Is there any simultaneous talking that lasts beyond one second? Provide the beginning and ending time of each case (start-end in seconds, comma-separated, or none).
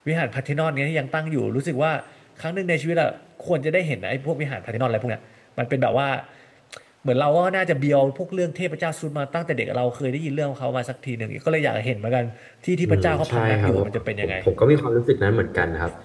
12.8-14.3